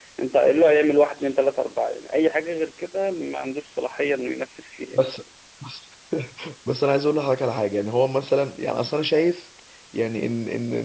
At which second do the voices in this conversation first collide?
none

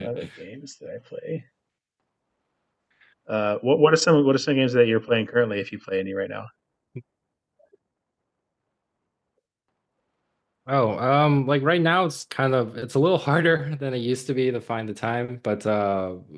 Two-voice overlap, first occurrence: none

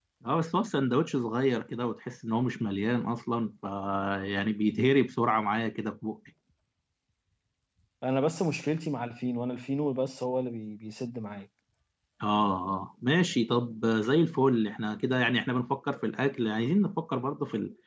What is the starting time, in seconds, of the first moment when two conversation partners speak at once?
none

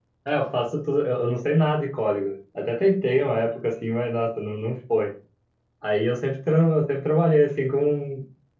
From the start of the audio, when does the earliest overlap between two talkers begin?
none

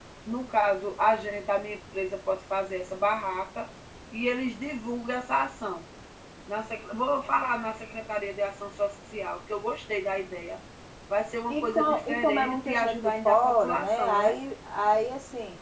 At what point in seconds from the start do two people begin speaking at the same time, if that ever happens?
11.5 s

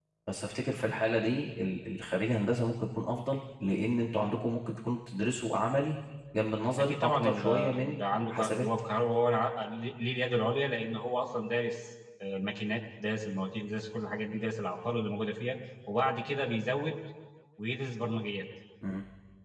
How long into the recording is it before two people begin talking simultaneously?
6.8 s

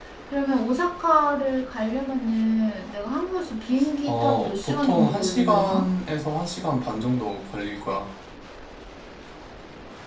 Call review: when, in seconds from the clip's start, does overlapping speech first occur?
4.1 s

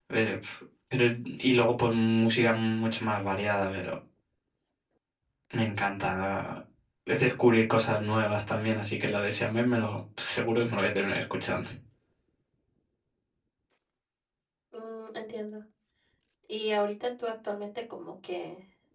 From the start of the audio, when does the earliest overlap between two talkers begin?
none

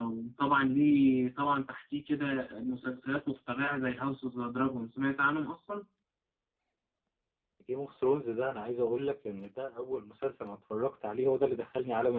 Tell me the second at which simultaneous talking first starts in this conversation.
none

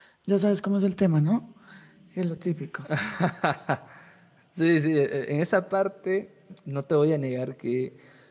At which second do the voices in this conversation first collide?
none

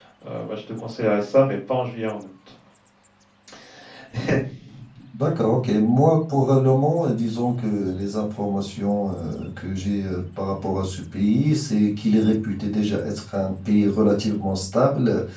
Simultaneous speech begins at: none

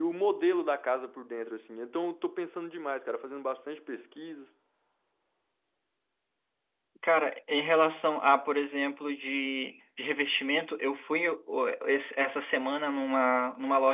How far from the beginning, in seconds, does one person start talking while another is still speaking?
none

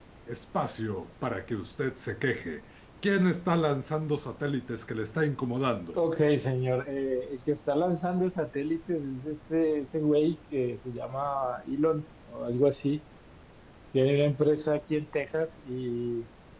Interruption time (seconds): none

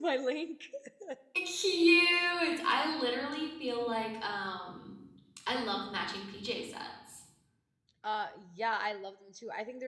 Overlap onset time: none

